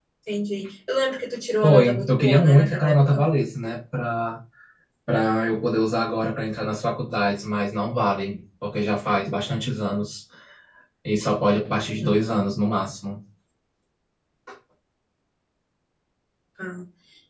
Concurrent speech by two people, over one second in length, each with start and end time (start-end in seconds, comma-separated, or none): 1.6-3.2